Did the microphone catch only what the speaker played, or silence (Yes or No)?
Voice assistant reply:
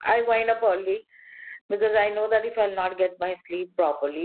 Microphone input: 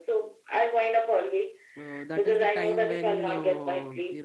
No